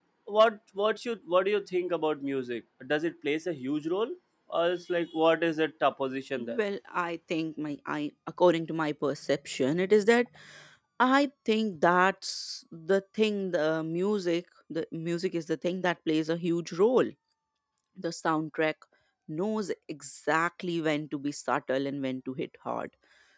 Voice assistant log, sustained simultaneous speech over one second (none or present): none